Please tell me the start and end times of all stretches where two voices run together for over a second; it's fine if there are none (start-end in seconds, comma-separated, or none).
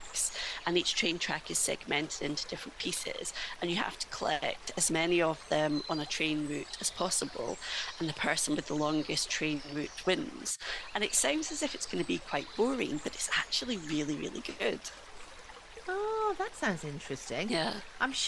none